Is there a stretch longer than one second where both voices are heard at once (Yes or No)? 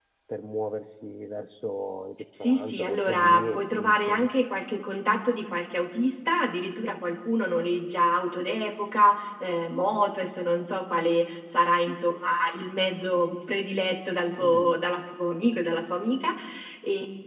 Yes